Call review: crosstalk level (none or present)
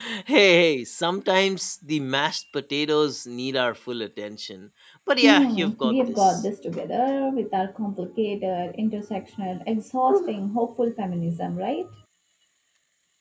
present